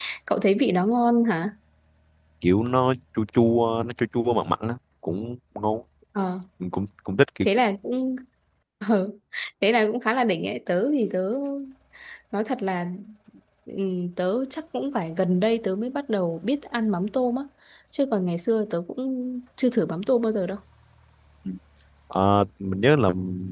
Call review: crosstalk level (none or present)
none